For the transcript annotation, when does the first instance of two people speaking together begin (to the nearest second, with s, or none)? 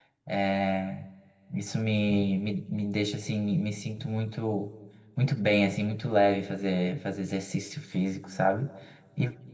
none